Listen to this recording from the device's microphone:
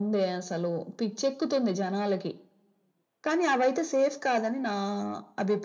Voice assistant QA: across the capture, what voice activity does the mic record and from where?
echo only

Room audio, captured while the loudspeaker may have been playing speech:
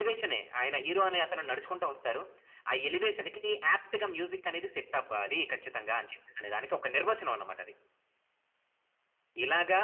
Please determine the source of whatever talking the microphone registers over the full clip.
echo only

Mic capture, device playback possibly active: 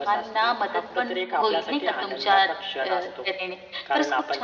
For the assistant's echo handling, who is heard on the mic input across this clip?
echo only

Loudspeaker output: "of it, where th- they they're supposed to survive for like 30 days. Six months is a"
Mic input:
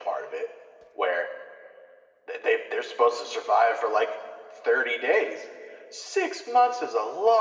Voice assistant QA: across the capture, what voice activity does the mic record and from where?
echo only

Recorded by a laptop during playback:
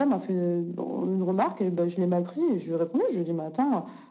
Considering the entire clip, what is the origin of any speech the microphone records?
echo only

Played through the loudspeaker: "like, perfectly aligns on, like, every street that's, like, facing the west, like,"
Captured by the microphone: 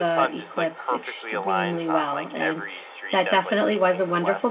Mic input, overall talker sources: both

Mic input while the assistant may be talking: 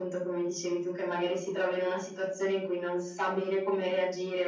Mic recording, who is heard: echo only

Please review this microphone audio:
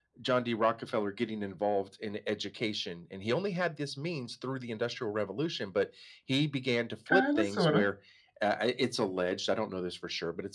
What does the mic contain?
both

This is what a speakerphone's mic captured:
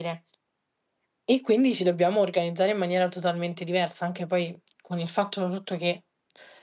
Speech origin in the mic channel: user only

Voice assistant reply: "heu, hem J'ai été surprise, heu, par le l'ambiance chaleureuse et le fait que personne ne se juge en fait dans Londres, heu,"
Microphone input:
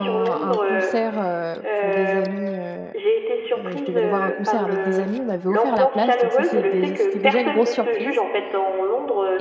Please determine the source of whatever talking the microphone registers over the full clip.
both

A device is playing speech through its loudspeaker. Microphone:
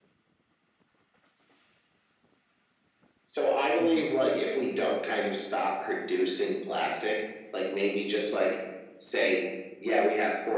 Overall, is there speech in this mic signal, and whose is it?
both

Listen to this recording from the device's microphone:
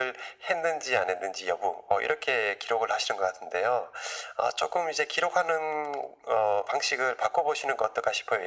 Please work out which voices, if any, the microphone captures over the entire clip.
echo only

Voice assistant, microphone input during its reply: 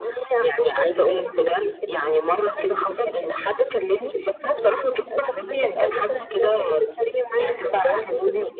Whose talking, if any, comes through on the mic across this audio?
both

